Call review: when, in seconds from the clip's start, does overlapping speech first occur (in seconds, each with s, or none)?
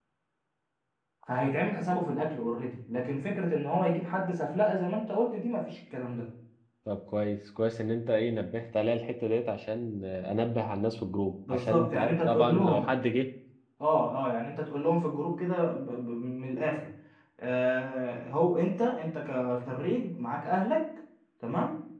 11.5 s